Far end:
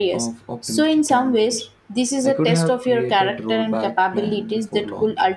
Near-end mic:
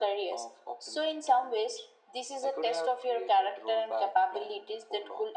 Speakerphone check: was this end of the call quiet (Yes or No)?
Yes